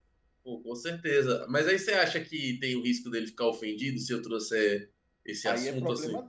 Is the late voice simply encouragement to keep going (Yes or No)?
No